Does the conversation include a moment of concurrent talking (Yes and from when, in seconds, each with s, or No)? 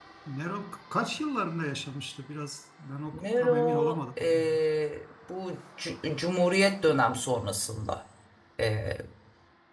Yes, from 3.1 s